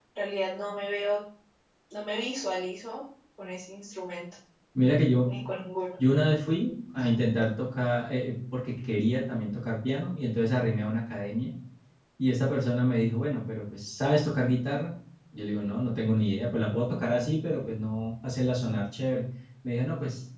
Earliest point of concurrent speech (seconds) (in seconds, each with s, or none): none